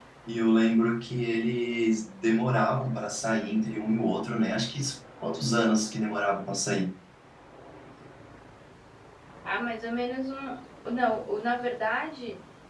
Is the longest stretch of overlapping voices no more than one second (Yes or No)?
Yes